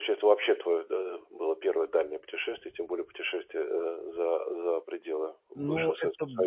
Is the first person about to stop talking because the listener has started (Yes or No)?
Yes